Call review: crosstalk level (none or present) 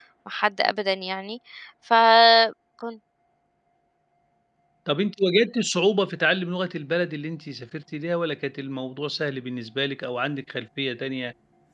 none